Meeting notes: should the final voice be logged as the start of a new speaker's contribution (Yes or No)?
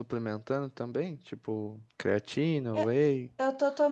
Yes